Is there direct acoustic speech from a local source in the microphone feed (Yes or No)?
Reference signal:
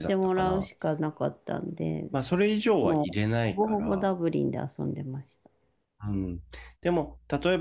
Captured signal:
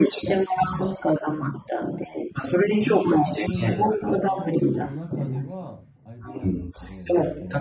Yes